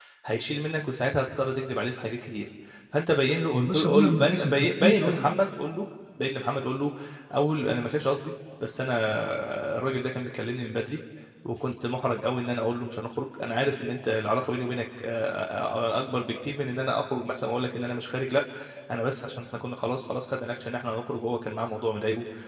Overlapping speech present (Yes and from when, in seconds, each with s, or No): Yes, from 3.5 s